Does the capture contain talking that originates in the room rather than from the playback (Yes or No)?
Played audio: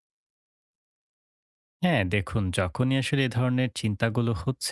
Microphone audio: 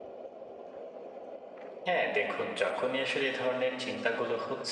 No